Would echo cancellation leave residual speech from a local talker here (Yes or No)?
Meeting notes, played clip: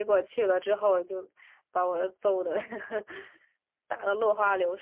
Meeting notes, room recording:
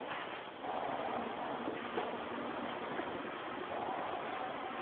No